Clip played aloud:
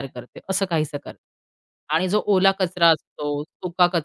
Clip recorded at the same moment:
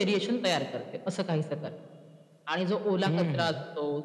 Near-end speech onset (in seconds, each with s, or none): 3.1 s